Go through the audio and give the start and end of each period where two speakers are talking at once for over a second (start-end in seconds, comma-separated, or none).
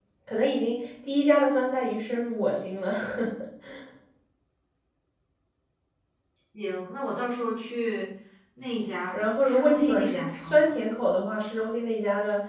9.1-10.7